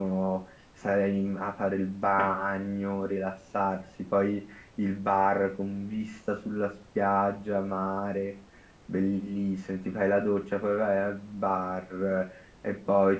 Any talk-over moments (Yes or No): No